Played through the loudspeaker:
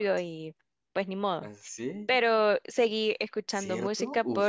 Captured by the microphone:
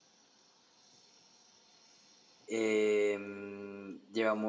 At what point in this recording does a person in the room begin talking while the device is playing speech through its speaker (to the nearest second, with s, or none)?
2 s